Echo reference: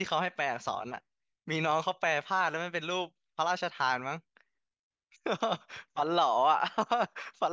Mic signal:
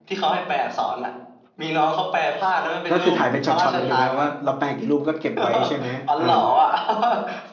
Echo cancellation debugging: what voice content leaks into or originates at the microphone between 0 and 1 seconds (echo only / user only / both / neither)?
echo only